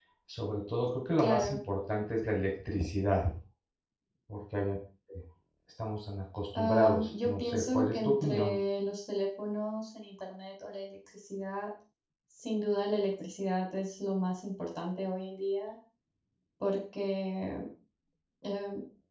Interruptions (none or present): present